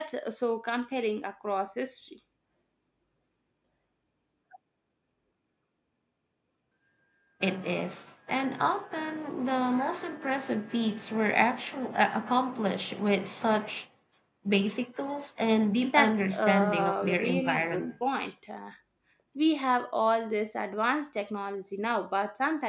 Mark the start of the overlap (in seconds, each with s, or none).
15.8 s